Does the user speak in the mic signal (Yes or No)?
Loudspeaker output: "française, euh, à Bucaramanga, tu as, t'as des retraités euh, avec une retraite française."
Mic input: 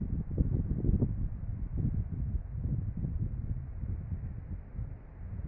No